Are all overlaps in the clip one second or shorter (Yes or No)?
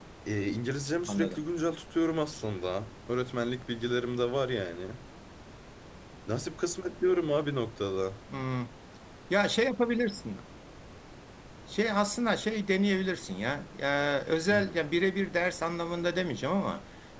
Yes